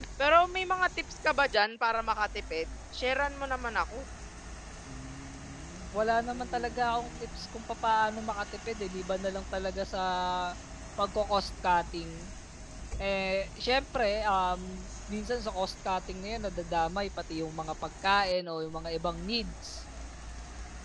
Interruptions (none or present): none